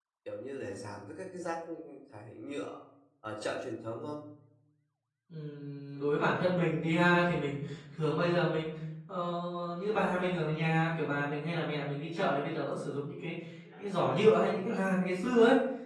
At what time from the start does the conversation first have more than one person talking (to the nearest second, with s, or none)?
none